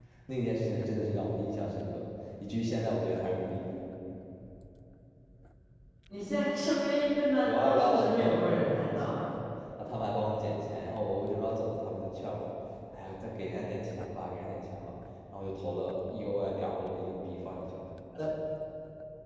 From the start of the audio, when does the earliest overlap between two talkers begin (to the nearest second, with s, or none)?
7 s